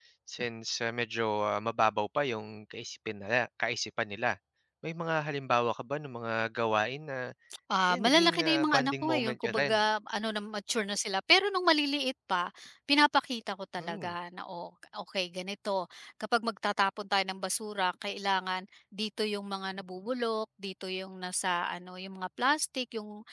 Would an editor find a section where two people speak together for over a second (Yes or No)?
Yes